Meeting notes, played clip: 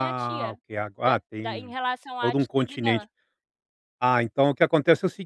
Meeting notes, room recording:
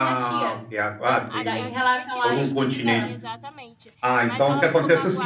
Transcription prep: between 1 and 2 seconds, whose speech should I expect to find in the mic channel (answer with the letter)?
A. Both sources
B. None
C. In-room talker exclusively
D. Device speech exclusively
A